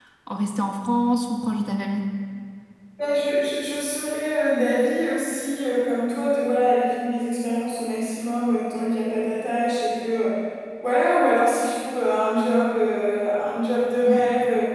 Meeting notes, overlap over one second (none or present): none